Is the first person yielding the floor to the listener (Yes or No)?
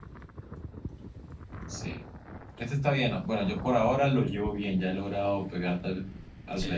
Yes